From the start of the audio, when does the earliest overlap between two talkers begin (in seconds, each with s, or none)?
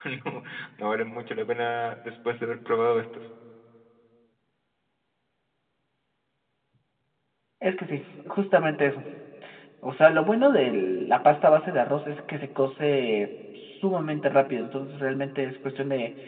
none